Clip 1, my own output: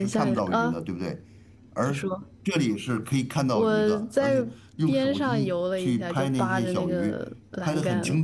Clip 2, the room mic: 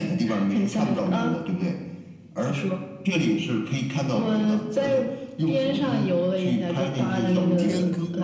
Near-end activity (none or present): present